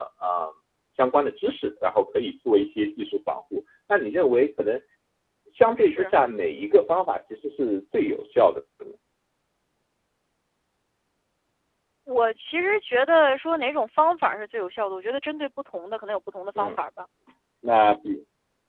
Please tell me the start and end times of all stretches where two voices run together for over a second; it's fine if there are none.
none

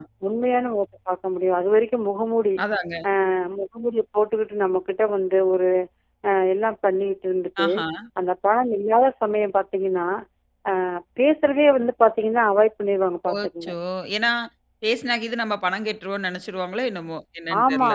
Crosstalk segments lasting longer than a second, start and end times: none

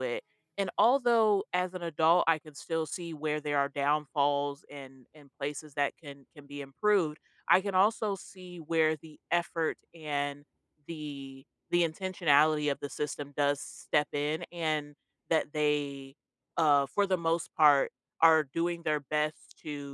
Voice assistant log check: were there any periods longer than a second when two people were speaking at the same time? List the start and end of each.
none

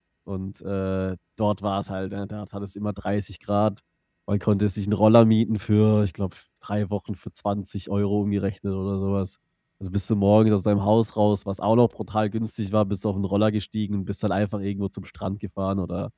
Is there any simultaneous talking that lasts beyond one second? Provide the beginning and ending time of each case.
none

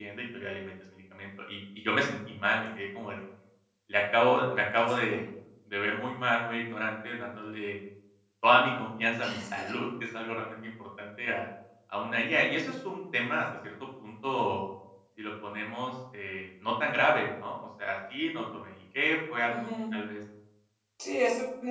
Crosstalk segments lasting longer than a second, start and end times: none

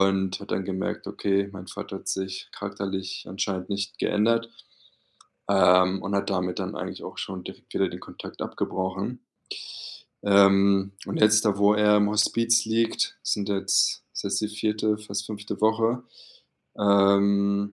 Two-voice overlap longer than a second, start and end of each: none

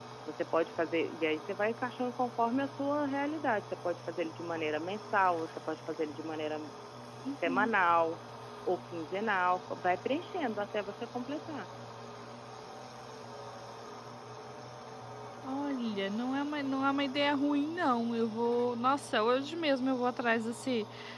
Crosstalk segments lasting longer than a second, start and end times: none

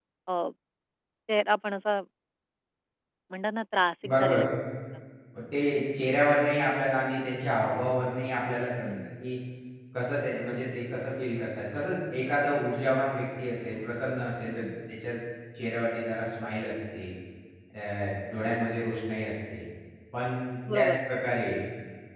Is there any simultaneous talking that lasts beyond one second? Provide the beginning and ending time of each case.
none

